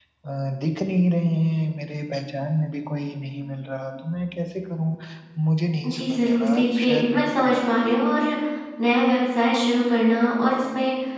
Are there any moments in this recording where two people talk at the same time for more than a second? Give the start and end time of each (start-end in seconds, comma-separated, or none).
5.8-7.7